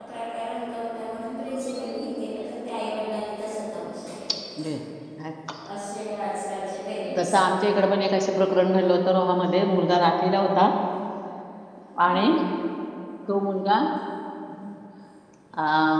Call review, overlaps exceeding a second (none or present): none